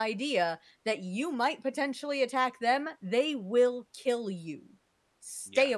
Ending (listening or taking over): taking over